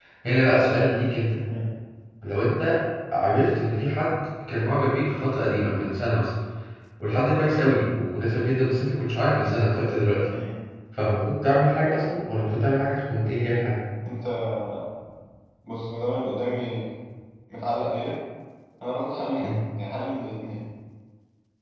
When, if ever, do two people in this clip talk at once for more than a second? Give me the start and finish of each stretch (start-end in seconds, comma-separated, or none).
none